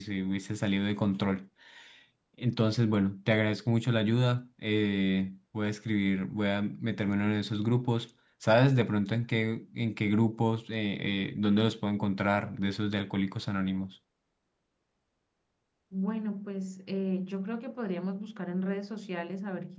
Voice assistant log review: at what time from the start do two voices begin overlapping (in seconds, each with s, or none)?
none